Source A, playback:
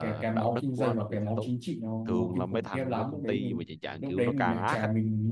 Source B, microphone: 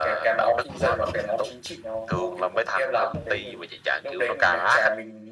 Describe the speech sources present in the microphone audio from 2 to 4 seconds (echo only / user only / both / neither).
echo only